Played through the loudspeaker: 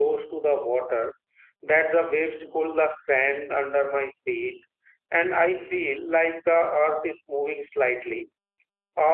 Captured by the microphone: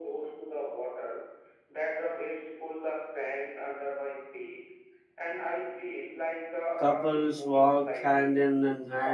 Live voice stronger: Yes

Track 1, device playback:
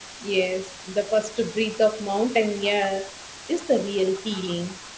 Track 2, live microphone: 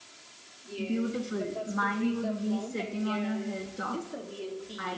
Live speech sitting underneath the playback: No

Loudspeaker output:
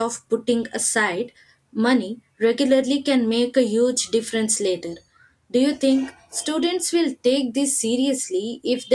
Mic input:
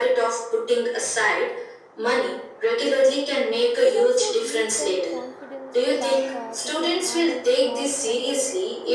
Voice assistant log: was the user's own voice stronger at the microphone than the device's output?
No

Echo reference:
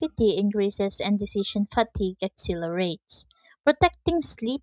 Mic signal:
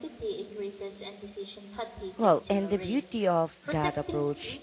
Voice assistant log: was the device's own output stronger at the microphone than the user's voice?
No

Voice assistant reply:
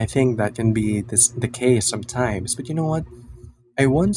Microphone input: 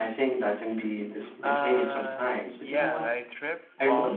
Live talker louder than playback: No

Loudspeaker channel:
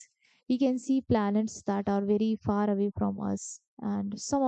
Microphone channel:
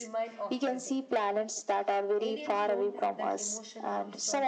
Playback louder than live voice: Yes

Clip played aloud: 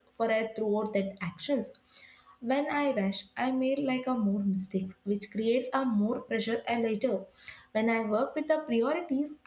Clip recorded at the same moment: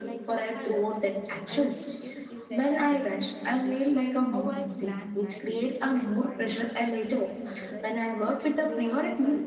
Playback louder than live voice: Yes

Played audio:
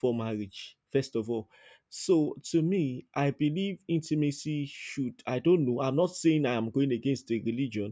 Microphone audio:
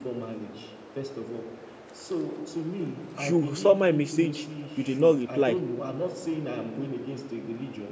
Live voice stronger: Yes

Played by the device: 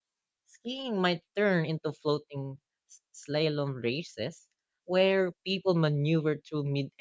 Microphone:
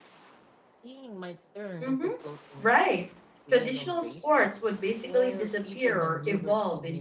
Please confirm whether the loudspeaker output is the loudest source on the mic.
No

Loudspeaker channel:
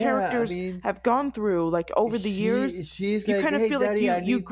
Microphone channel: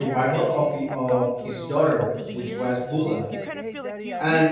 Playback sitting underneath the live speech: Yes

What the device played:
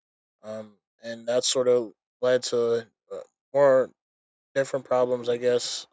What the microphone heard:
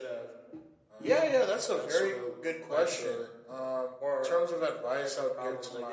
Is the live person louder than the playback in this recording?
Yes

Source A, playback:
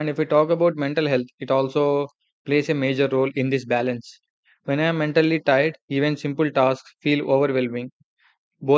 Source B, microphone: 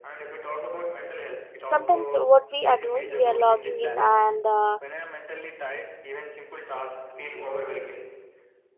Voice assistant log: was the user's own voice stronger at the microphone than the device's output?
Yes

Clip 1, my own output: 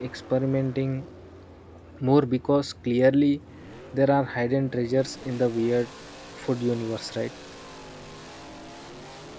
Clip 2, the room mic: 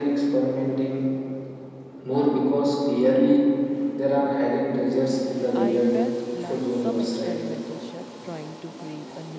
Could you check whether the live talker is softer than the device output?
Yes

